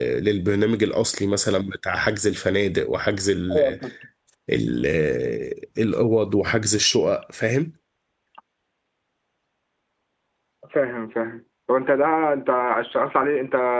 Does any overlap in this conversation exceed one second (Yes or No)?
No